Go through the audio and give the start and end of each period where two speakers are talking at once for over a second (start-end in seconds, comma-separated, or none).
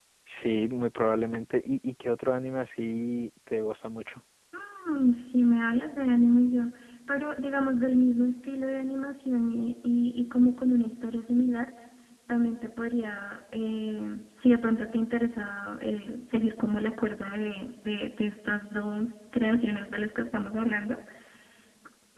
none